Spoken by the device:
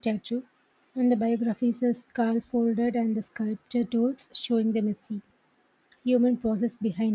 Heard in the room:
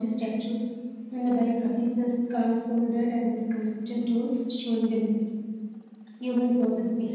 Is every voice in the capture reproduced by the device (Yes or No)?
Yes